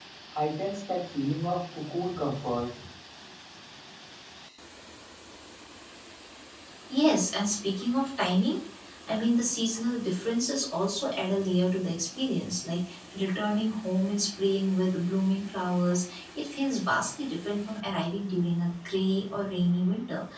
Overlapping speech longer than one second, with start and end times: none

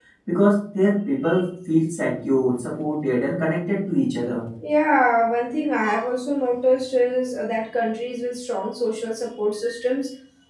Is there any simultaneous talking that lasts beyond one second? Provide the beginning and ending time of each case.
none

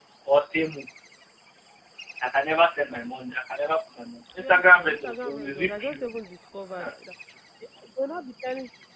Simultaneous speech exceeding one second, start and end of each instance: 4.4-6.0

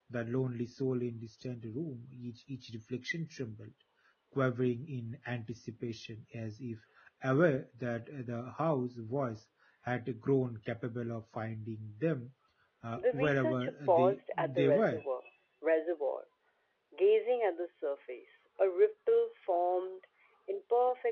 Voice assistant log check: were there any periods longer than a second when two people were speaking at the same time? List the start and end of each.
12.9-15.0

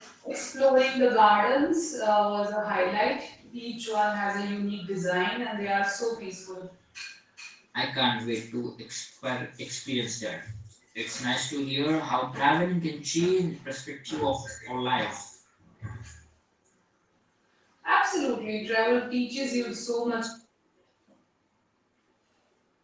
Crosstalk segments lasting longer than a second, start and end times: none

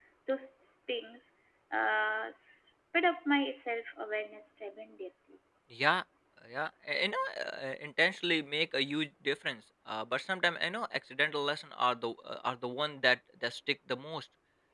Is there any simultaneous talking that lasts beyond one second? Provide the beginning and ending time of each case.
none

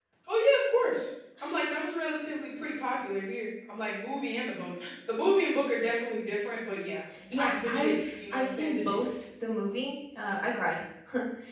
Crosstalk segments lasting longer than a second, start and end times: 7.3-9.0

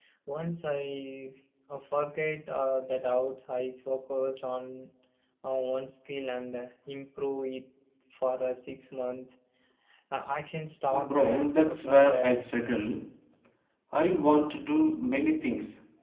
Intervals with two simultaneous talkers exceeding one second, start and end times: 11.1-12.4

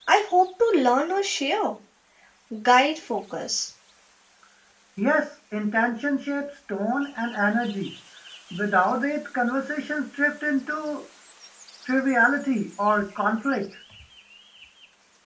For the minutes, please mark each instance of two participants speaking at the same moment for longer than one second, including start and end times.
none

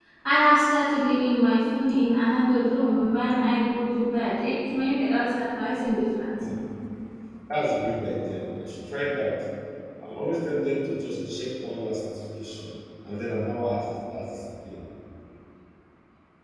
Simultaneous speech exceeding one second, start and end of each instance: none

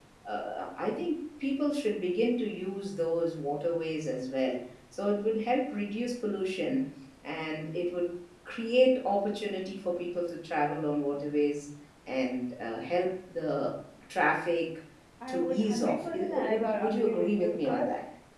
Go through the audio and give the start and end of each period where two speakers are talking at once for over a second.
15.3-17.9

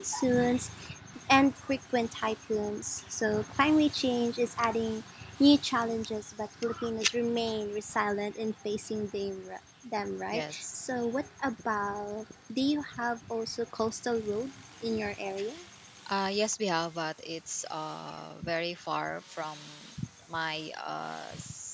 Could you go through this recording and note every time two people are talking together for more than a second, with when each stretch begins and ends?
none

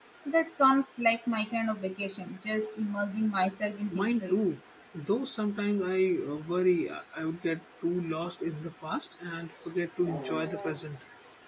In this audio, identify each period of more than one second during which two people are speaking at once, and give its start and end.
none

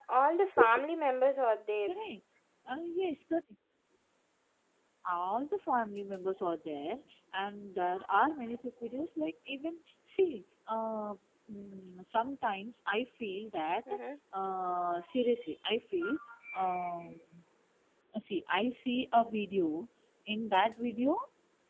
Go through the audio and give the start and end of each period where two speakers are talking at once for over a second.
none

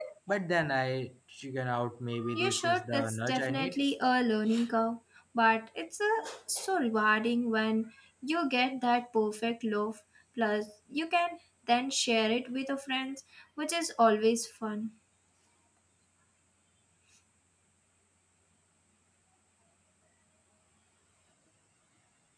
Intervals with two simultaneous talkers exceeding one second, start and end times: 2.3-3.8

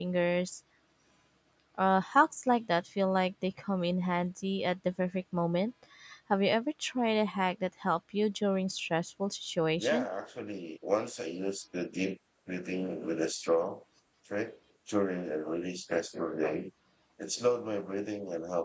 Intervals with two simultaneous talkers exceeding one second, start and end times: none

